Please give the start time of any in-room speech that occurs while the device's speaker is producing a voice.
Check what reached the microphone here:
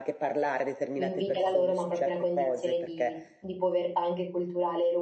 1.0 s

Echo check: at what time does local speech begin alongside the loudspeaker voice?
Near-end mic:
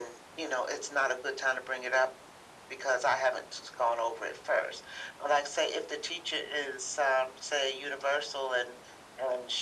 none

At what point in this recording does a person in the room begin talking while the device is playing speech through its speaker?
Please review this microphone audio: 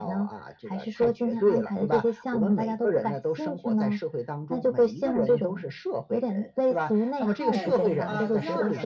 7.5 s

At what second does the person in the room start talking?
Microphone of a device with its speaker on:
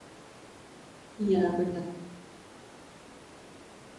1.2 s

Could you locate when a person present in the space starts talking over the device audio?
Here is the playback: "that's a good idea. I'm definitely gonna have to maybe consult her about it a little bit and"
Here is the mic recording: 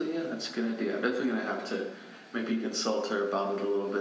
none

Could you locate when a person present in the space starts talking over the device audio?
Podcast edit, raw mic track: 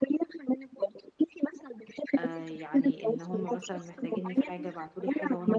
2.2 s

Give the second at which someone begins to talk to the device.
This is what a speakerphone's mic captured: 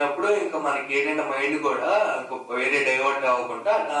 none

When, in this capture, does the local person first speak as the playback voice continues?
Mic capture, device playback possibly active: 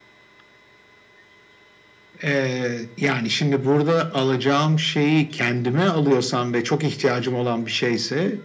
none

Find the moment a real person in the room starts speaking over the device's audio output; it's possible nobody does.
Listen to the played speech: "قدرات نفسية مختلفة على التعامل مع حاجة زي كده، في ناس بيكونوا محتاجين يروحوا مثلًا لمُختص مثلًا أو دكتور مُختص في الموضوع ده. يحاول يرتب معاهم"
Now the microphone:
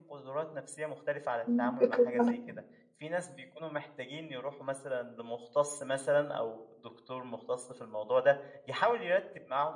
1.5 s

